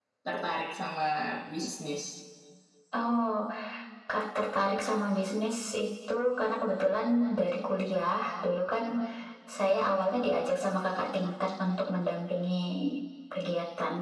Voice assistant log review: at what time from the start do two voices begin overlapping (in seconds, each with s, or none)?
none